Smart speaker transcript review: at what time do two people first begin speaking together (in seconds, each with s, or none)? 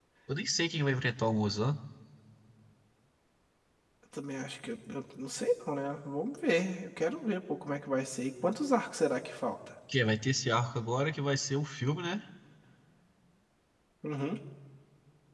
none